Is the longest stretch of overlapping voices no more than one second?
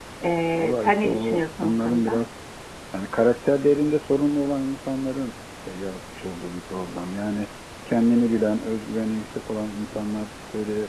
No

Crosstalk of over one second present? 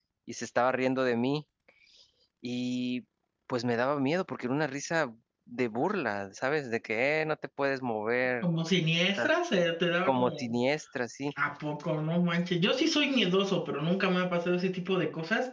No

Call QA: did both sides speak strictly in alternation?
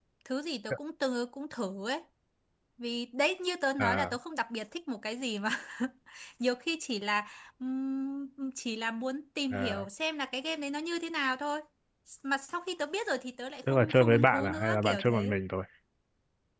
No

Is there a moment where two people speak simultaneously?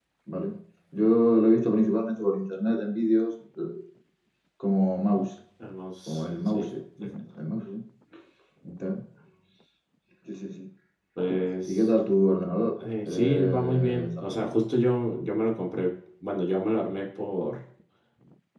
Yes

